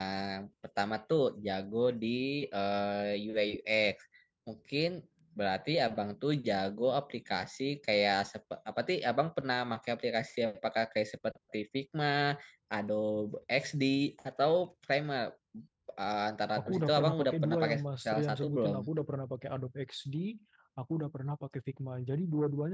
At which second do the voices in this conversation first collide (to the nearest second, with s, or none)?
17 s